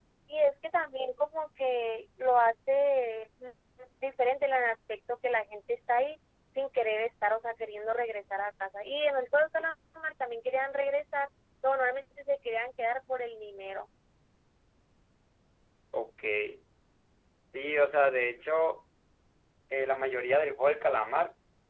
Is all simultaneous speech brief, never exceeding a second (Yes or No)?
Yes